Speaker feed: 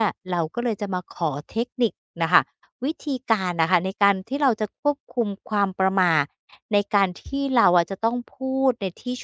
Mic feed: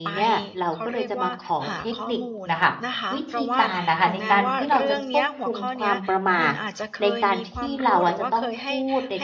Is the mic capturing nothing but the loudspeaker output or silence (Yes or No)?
No